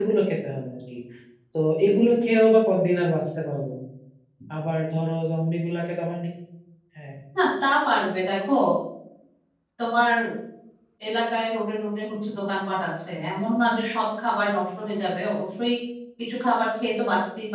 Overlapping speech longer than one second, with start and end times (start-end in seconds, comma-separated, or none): none